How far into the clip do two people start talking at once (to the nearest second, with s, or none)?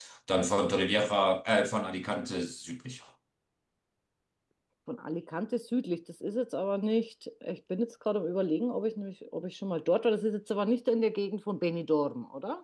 none